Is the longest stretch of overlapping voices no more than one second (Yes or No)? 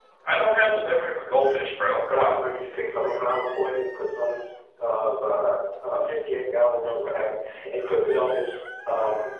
Yes